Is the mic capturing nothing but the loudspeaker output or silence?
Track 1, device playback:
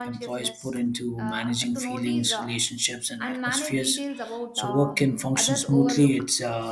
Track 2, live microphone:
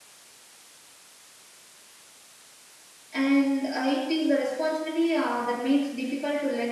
No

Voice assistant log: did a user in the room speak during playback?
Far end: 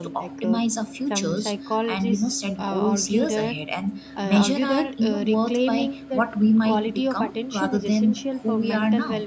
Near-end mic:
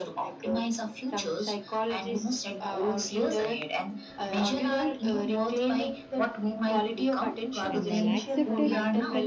Yes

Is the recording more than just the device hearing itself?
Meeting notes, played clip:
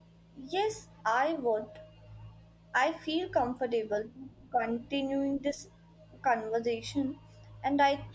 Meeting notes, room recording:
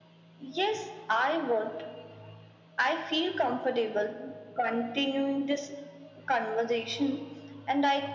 No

